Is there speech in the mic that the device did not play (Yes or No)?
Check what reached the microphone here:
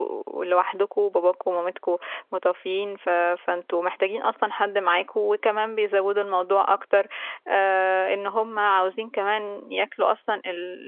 Yes